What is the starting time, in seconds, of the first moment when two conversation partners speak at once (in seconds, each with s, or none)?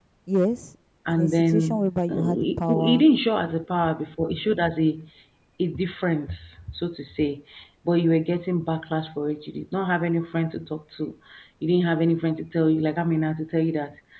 1.1 s